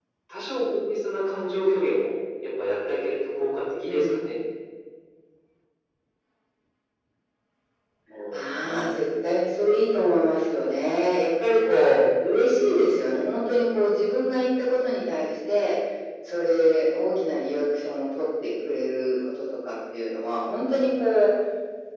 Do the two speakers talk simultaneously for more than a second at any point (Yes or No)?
No